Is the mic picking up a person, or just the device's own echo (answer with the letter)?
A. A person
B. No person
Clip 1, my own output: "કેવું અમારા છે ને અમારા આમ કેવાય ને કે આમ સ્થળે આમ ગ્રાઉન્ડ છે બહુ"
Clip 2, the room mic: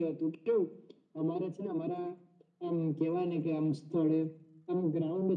B